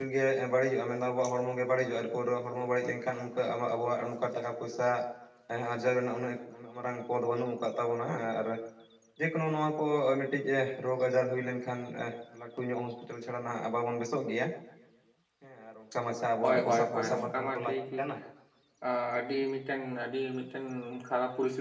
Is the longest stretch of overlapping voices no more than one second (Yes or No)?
No